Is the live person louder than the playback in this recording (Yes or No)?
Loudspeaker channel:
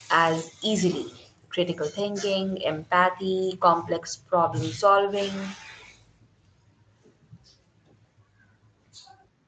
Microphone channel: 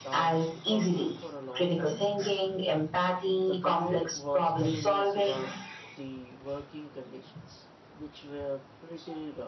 No